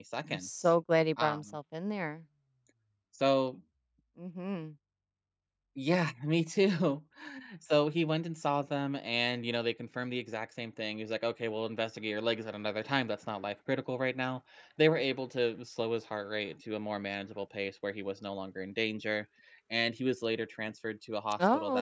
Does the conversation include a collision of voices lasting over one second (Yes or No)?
No